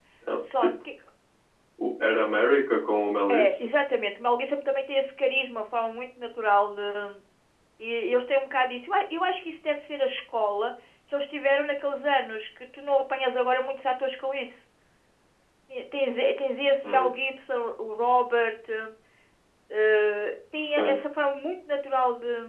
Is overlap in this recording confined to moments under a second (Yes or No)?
Yes